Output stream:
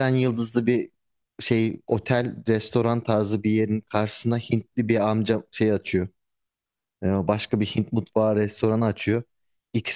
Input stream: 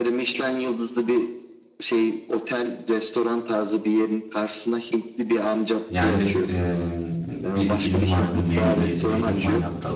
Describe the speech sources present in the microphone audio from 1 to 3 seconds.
echo only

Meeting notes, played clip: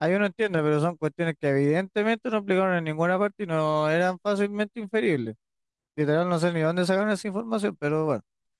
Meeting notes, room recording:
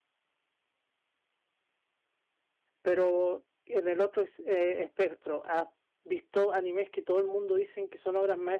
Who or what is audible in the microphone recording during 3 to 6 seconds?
user only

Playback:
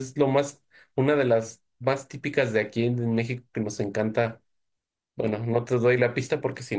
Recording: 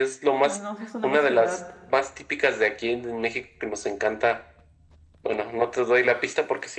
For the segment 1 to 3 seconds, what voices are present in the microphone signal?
both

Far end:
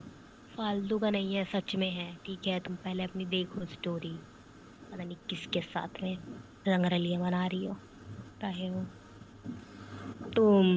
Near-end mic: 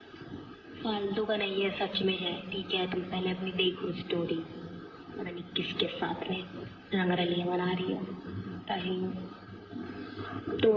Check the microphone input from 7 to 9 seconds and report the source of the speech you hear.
echo only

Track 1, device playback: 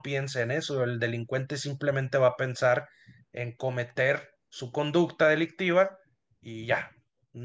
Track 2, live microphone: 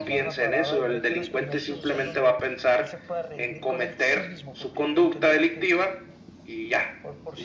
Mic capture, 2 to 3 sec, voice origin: both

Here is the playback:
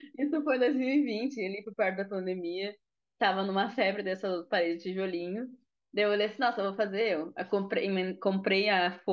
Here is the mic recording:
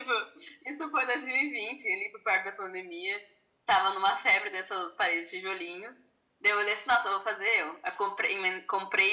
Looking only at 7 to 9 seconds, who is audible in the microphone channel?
echo only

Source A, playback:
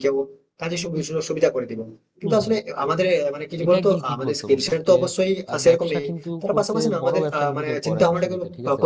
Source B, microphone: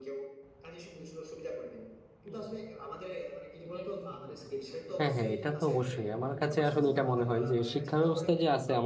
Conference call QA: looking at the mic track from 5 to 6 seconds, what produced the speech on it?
both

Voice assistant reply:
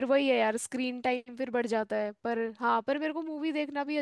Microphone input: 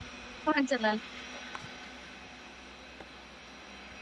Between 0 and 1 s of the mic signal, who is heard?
user only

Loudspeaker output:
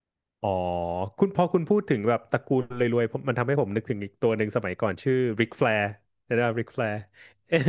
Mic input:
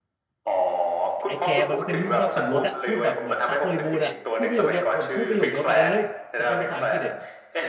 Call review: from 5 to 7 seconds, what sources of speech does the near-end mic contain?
both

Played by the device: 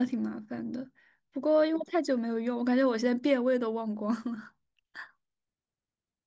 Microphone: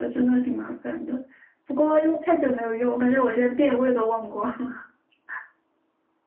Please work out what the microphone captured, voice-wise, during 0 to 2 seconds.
echo only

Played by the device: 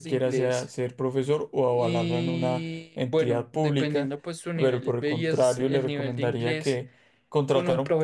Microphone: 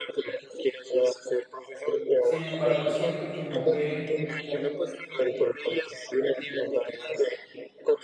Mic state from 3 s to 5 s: both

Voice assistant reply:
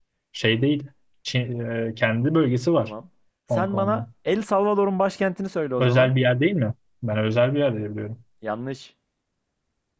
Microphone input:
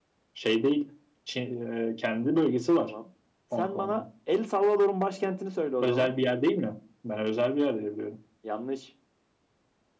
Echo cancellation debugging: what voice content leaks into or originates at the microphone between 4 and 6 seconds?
echo only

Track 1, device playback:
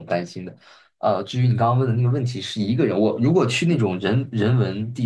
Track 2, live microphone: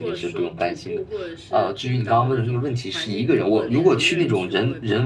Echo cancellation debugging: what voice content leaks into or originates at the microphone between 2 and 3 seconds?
both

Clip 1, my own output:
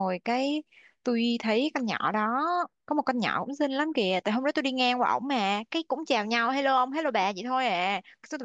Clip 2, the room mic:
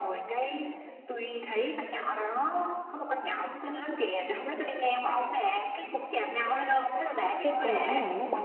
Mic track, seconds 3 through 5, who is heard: echo only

